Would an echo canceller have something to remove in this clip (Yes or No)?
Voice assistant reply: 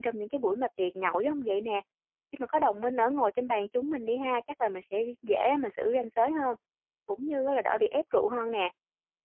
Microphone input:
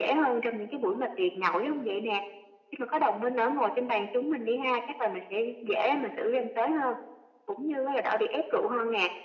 Yes